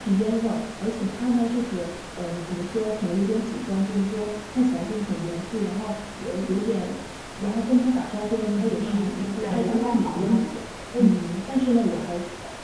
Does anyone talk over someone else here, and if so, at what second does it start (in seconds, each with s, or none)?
8.4 s